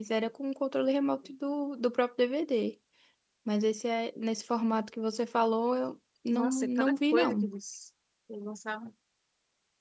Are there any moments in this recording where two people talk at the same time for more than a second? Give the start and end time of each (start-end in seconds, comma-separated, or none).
6.3-7.5